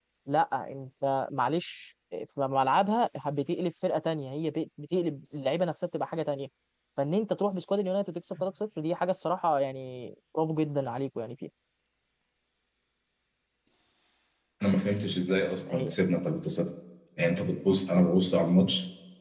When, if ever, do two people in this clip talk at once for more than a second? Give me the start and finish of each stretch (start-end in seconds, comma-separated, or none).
none